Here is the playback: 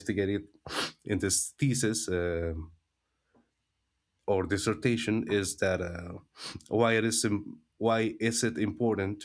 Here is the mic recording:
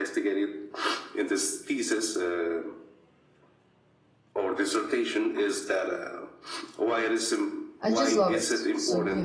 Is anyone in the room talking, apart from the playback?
Yes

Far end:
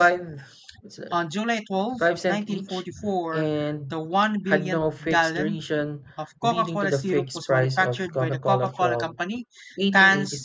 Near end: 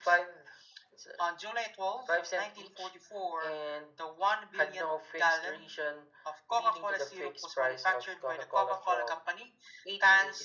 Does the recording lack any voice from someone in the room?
Yes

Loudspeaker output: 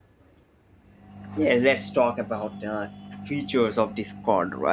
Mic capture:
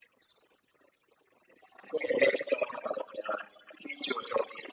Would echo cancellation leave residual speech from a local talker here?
No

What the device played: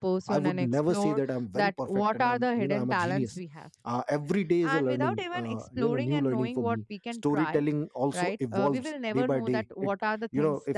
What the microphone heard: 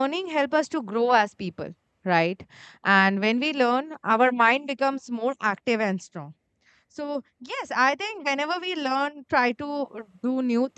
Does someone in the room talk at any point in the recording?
Yes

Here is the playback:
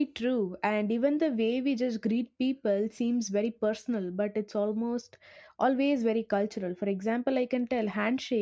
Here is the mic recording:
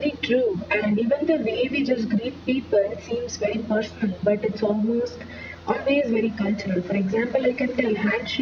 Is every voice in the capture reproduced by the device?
Yes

